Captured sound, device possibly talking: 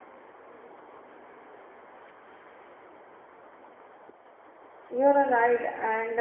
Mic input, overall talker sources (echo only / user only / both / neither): user only